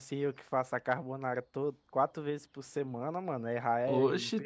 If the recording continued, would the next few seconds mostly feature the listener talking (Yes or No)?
Yes